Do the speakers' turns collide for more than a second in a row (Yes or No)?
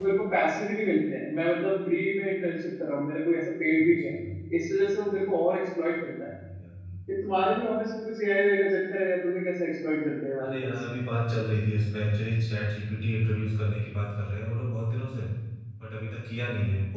No